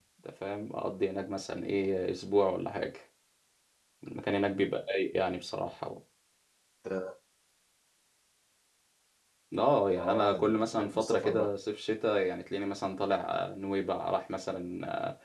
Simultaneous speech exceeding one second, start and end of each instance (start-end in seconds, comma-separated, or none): 10.0-11.5